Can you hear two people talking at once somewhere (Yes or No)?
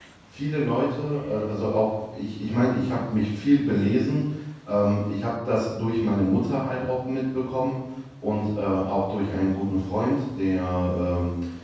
No